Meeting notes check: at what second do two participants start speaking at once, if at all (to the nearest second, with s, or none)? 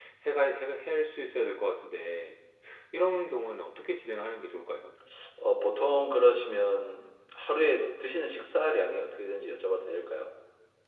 none